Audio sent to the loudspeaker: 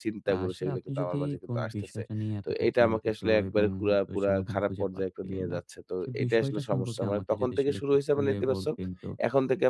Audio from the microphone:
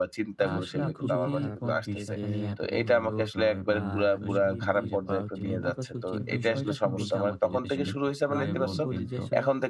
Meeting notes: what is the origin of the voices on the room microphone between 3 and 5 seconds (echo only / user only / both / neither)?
both